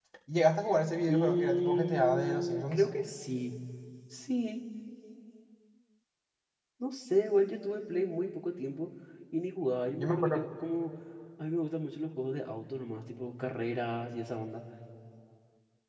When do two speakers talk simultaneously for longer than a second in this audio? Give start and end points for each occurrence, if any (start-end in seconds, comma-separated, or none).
1.1-2.8